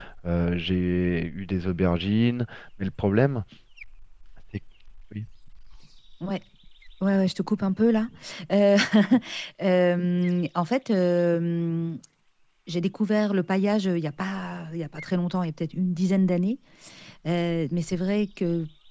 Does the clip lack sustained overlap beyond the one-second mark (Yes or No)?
Yes